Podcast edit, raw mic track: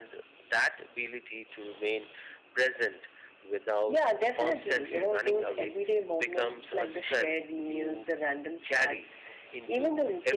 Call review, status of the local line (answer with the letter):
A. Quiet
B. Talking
A